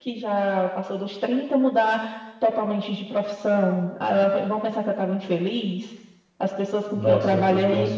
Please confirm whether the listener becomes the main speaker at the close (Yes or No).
Yes